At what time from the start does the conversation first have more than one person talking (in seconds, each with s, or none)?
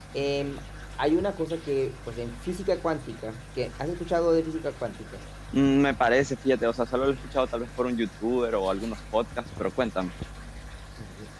none